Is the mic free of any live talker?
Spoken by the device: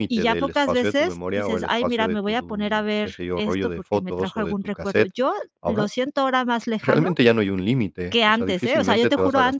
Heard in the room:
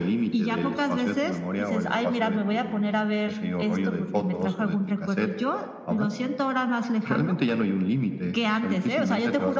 Yes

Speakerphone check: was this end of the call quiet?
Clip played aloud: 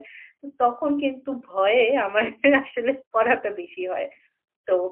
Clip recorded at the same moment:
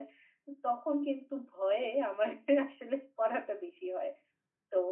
Yes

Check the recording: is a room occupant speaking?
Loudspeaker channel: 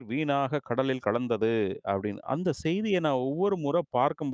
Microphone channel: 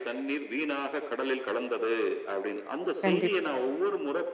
Yes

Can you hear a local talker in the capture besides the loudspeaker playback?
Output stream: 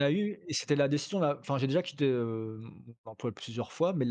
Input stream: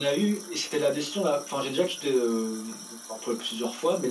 No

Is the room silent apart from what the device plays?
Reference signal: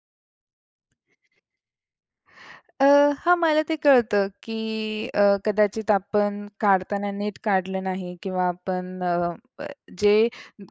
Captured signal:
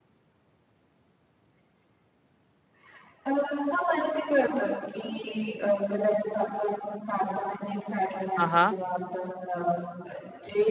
No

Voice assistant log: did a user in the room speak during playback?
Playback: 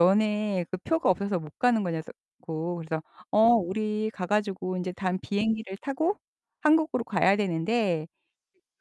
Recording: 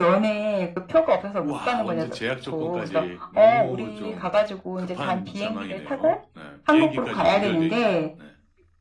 Yes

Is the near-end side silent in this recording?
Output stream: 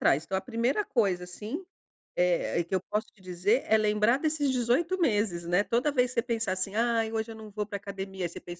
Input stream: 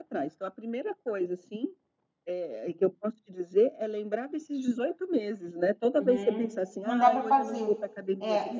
No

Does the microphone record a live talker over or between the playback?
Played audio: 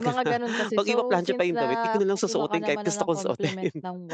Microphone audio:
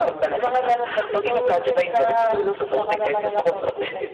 No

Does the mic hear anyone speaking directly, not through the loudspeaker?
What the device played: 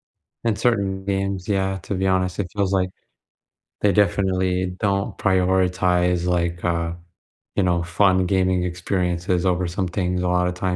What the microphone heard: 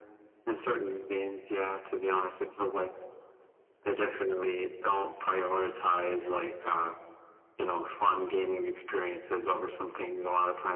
No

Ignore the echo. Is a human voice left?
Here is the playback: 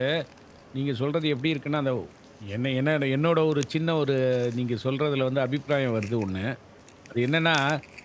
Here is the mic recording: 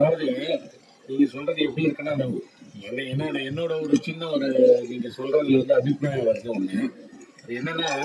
No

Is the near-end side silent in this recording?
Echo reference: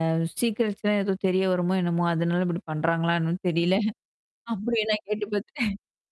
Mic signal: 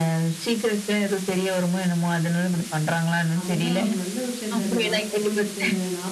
No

